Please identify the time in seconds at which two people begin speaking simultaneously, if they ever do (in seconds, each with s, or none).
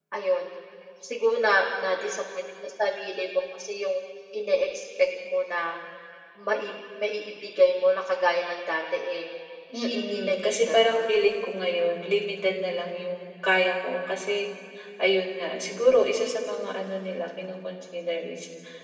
9.9 s